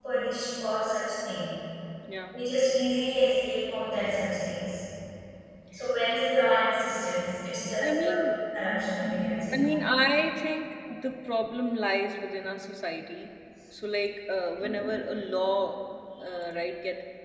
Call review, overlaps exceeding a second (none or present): none